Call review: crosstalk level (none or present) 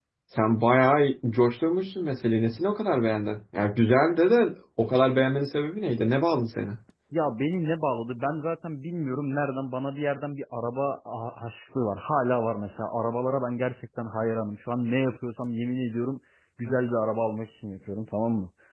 none